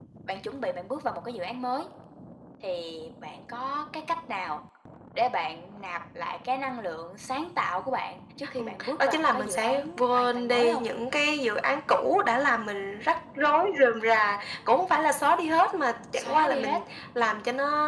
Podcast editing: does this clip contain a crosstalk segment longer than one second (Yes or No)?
Yes